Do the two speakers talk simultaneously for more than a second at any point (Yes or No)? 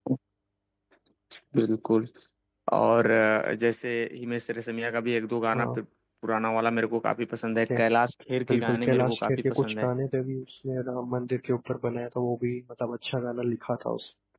Yes